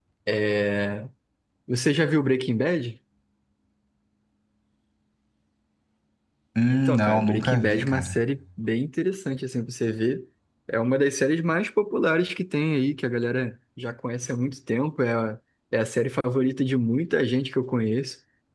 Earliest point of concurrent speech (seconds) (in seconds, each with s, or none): 6.7 s